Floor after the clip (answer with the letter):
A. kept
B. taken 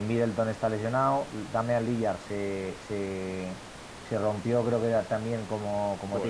B